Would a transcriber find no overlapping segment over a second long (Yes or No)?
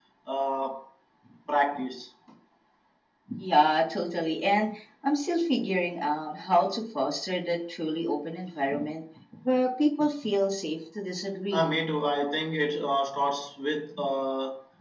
Yes